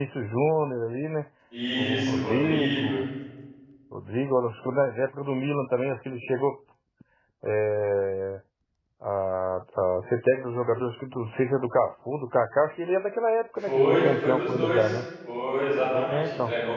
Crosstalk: present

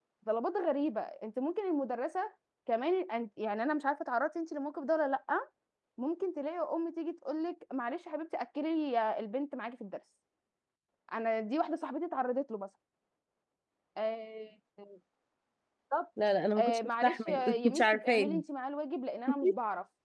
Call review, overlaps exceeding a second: present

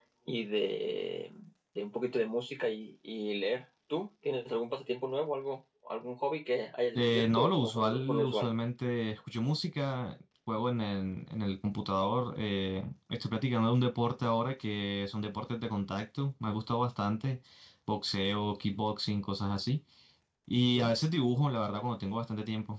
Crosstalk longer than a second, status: present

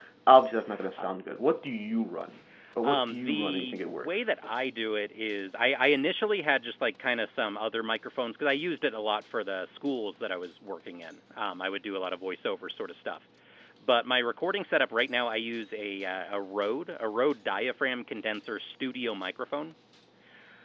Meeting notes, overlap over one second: present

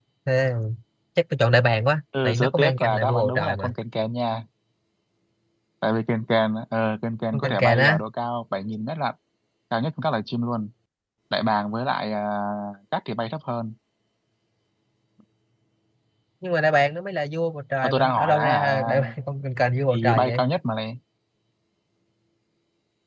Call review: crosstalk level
present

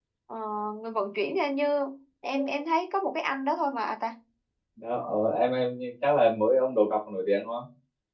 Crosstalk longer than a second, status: none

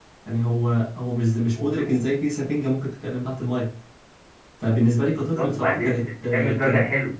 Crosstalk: present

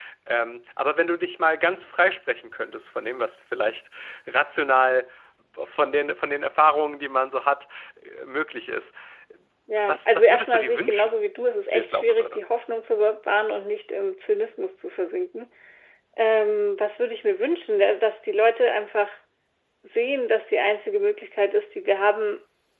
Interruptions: present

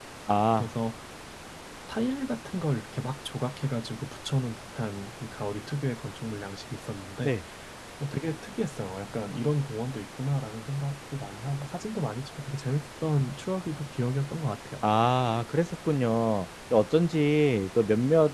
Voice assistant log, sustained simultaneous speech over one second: none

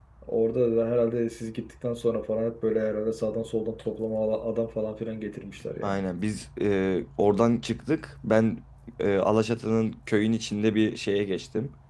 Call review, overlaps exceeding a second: none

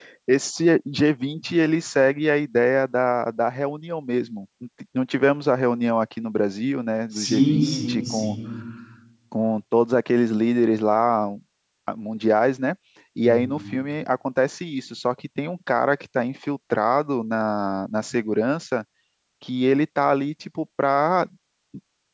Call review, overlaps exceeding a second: present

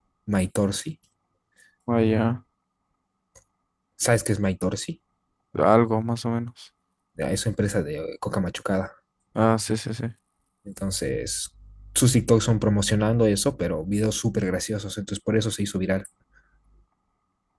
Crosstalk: none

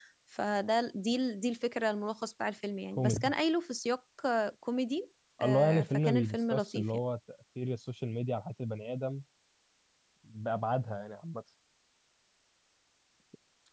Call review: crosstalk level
present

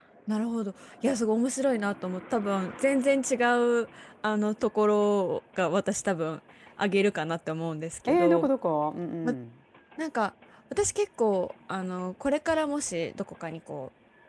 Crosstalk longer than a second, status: none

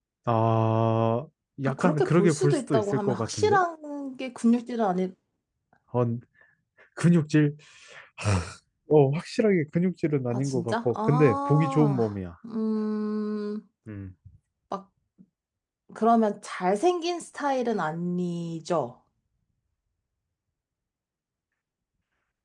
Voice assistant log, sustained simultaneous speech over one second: present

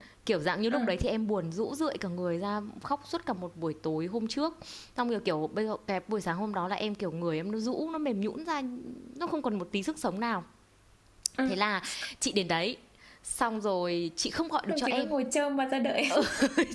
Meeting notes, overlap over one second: none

